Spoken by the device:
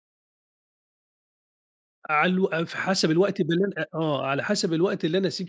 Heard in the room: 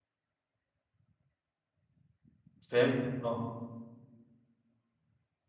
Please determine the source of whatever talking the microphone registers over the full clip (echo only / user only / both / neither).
user only